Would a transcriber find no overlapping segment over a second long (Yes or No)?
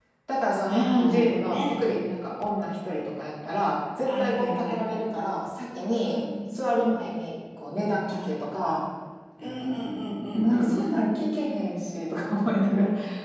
No